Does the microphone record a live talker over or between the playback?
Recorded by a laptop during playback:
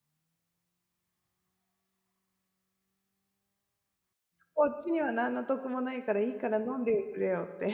Yes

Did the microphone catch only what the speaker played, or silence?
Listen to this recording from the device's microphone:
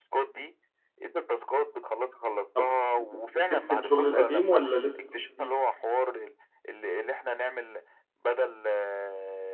No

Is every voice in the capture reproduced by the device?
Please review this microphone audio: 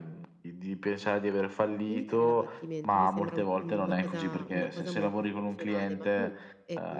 No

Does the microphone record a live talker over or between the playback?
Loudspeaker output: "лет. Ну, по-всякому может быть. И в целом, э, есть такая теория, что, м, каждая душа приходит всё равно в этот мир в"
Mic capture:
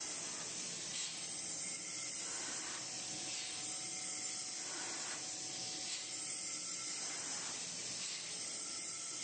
No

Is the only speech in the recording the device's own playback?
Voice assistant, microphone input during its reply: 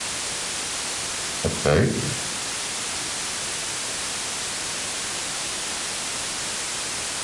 No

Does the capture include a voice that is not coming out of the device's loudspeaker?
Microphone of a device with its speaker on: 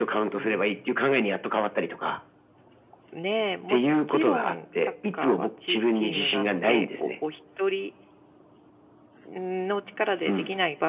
Yes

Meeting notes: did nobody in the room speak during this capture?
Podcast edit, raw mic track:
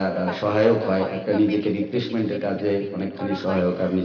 No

